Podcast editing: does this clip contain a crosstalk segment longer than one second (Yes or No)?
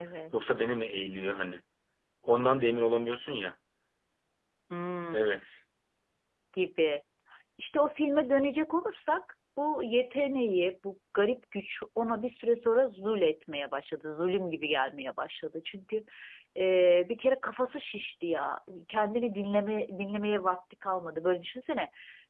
No